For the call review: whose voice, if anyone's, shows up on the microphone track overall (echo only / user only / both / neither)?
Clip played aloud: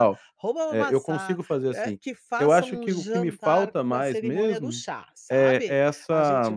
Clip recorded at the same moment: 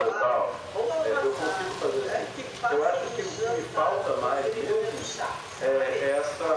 echo only